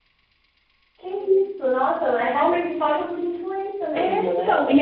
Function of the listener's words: taking over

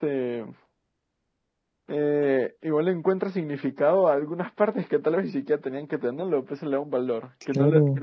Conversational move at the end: listening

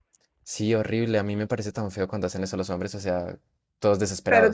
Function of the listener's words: taking over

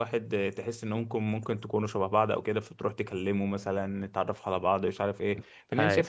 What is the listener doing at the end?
listening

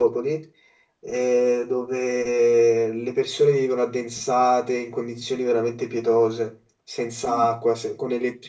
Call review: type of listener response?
listening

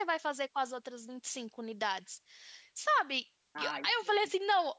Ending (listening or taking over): listening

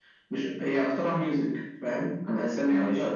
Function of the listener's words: listening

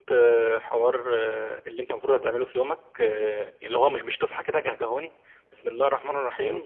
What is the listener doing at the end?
listening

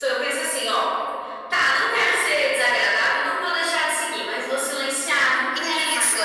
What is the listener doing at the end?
taking over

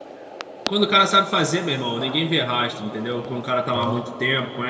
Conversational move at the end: listening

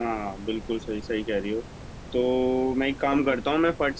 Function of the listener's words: listening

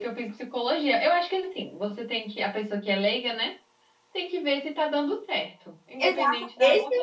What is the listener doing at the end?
taking over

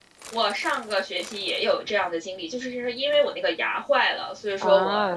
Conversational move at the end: listening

